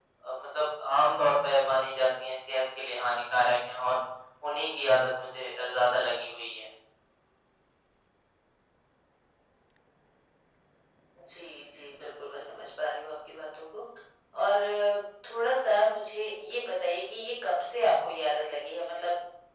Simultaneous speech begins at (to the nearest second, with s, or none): none